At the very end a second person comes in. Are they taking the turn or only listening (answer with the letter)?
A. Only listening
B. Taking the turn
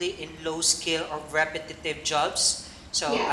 A